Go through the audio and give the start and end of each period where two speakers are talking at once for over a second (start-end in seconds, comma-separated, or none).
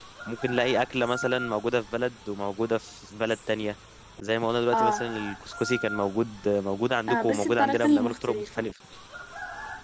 7.1-8.5